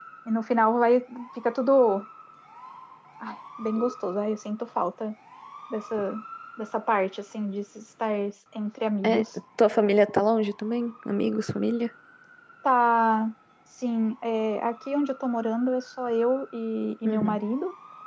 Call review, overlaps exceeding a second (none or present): none